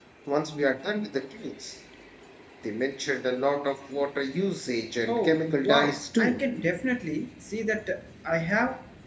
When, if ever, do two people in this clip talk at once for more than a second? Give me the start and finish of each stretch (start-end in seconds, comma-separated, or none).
5.1-6.4